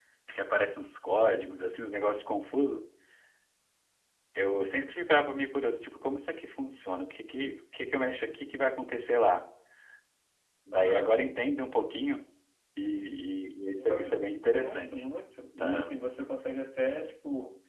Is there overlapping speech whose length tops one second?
Yes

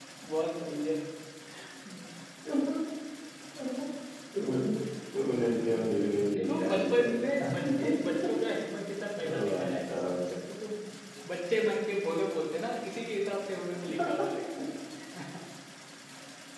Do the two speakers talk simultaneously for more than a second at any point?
Yes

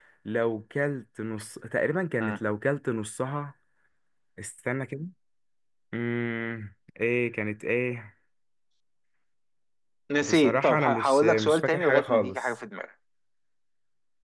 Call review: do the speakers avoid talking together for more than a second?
No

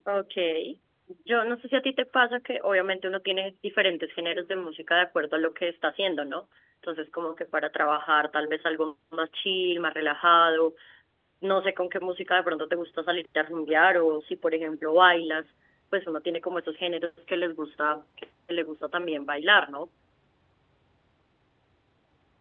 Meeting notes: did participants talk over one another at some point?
No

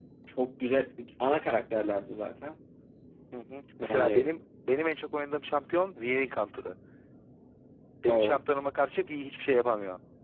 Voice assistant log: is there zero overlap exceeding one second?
Yes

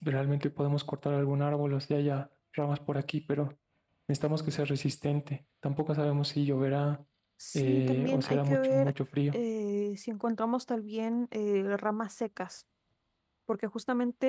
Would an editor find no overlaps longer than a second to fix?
No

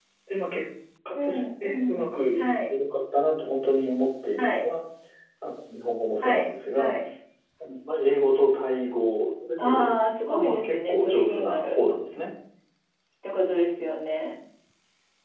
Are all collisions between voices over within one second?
No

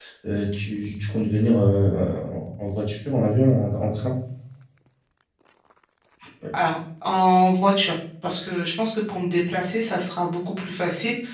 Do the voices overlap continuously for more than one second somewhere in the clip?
No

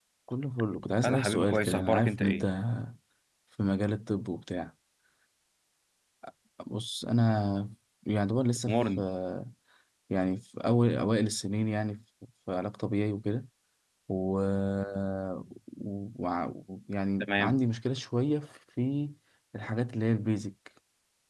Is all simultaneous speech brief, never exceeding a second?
No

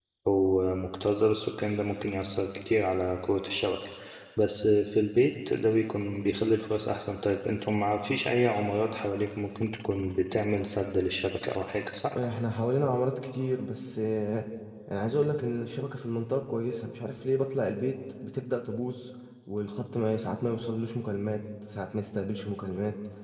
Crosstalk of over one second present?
No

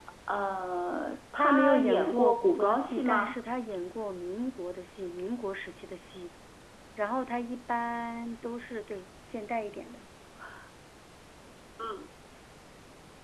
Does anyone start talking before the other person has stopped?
Yes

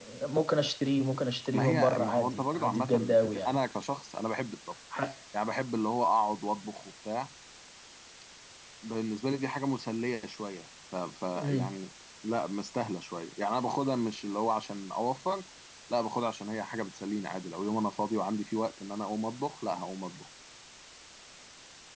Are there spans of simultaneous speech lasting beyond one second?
Yes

